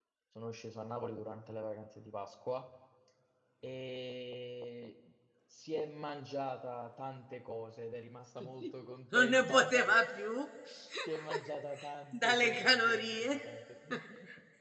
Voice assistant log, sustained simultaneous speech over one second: present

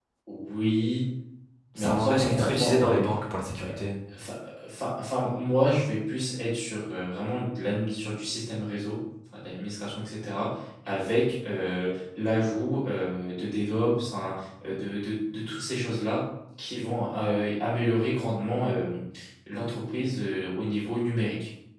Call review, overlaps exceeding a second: present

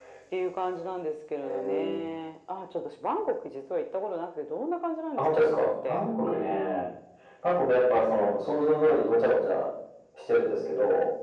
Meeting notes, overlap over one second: present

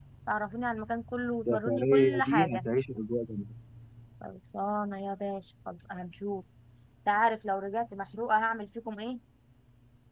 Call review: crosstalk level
present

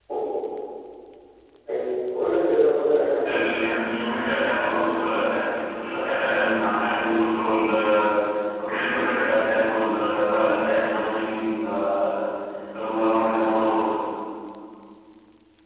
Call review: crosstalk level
none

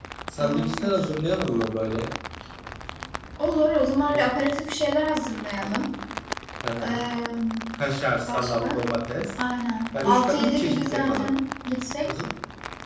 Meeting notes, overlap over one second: present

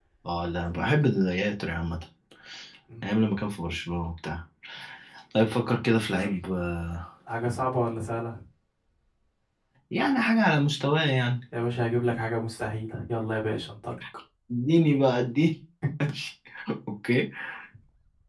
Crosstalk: none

